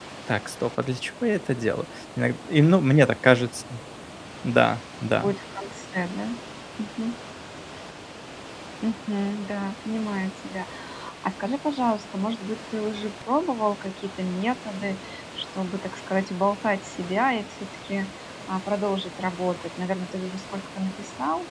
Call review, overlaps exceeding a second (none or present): none